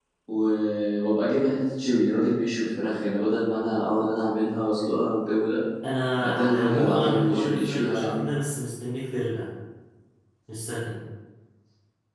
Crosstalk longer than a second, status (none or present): present